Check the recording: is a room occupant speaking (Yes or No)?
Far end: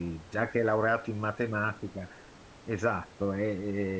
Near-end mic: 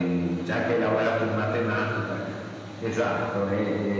No